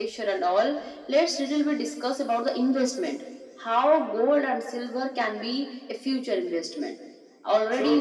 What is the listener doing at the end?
listening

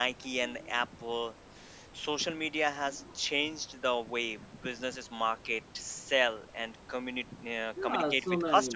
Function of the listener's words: taking over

